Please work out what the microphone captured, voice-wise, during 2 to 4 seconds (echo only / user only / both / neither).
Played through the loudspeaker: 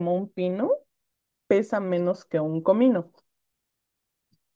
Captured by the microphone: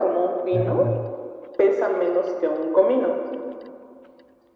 echo only